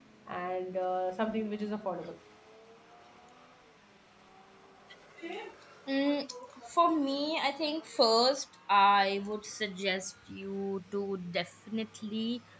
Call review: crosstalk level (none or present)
none